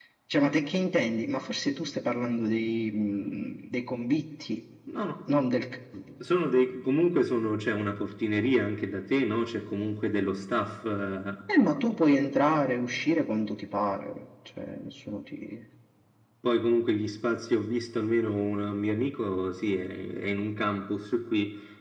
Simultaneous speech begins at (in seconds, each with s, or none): none